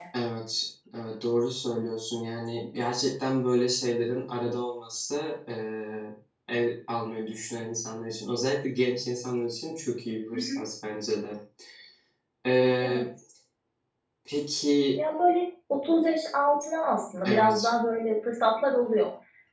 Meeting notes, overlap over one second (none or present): none